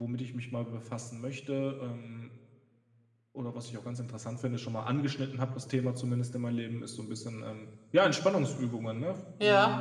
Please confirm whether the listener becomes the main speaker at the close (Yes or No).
Yes